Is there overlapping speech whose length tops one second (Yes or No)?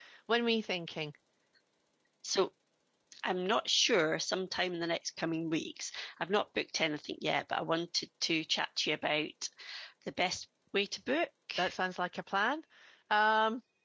No